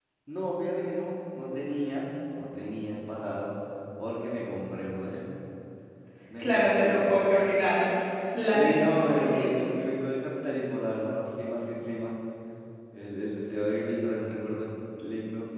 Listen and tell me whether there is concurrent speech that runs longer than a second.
Yes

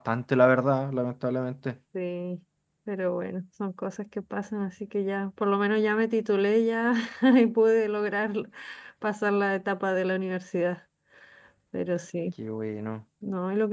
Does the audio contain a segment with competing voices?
No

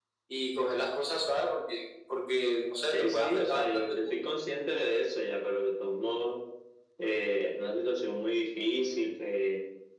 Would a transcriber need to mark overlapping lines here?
Yes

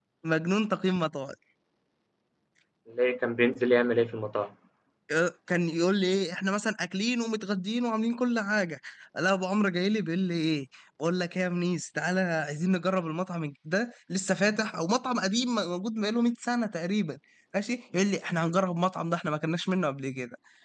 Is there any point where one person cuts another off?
No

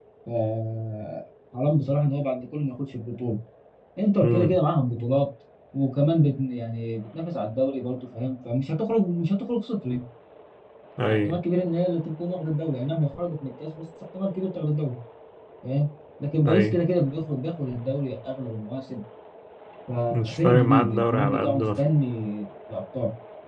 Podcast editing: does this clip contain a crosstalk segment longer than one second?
Yes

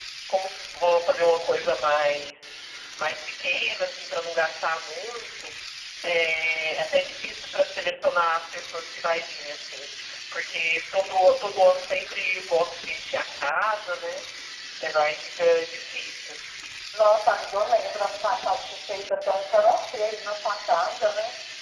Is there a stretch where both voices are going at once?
No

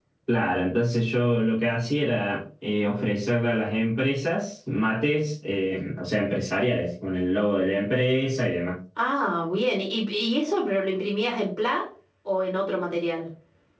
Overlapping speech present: No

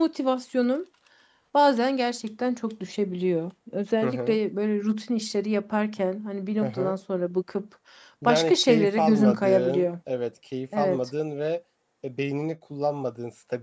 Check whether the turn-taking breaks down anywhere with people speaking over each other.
Yes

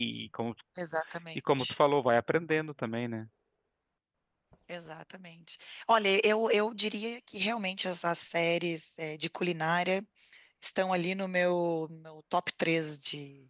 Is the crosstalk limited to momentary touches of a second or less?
Yes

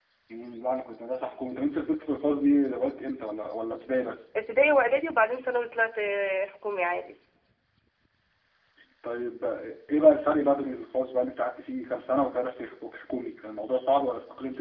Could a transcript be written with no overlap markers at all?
Yes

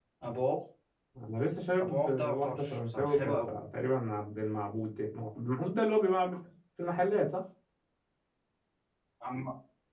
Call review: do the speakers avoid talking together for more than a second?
No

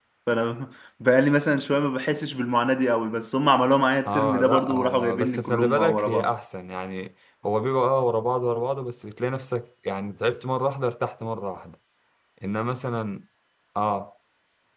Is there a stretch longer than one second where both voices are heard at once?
Yes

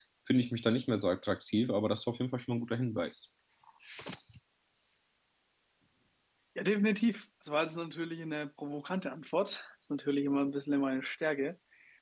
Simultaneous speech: No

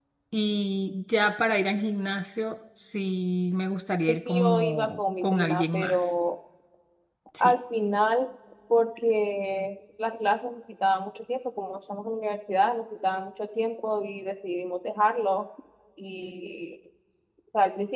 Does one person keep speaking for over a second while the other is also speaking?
Yes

